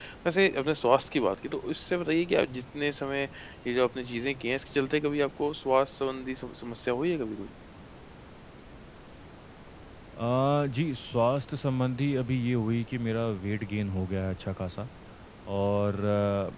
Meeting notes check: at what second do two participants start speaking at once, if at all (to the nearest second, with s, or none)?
none